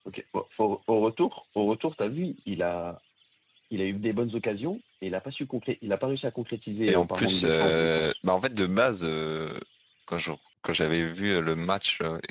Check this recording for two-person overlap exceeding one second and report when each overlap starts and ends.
6.9-8.1

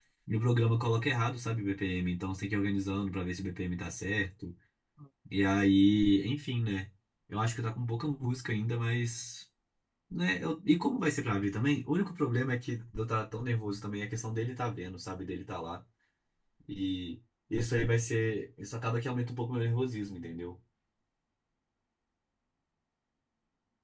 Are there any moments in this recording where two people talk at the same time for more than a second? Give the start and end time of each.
none

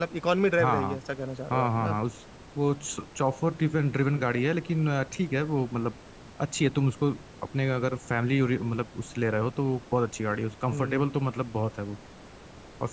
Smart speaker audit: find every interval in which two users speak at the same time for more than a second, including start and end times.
none

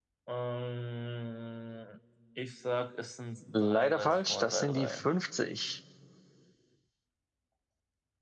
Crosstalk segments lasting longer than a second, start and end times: 3.5-5.1

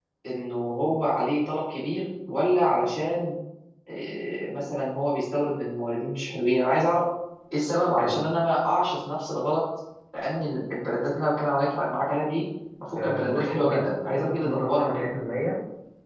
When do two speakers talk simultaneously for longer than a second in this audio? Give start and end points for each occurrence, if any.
13.0-15.1

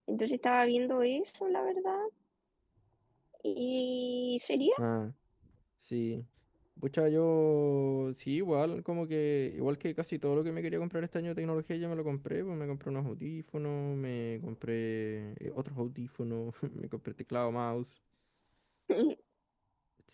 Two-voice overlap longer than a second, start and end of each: none

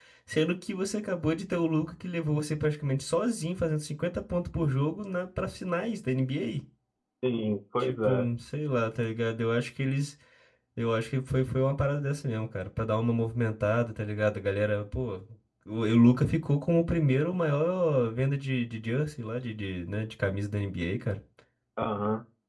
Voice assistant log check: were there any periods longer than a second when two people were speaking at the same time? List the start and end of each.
none

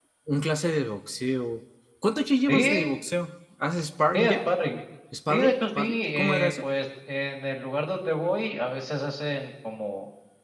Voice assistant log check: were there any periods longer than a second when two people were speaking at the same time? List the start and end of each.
5.3-6.7

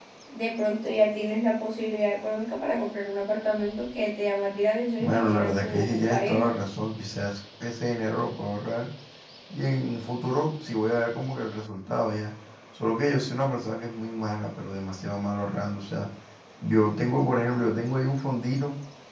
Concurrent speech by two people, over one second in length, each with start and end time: 5.0-6.5

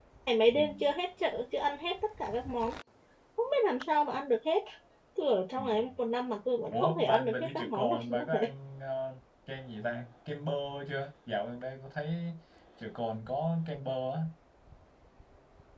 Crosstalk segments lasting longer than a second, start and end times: 6.7-8.5

